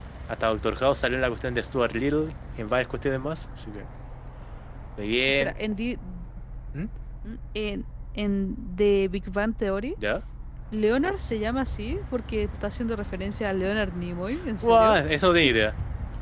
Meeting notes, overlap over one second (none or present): none